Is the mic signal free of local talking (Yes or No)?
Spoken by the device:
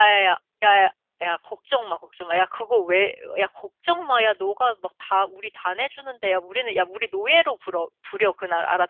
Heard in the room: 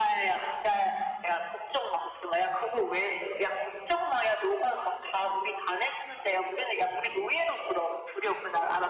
Yes